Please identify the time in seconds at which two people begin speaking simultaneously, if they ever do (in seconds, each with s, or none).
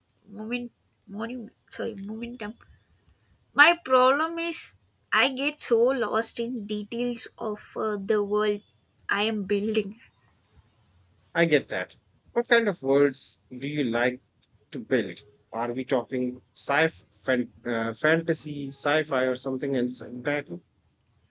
none